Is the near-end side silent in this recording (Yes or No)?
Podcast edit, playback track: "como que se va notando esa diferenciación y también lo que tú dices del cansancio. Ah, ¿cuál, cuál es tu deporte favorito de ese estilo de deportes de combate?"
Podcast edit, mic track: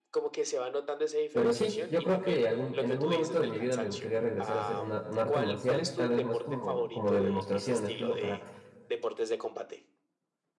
No